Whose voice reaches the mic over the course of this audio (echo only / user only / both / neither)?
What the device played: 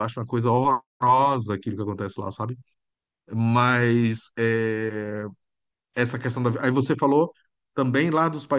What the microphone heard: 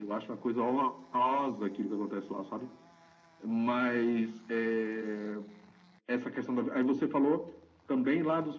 echo only